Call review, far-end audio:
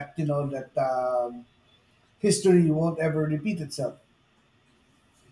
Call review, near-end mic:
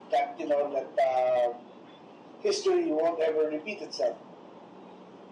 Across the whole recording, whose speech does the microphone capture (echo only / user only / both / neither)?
echo only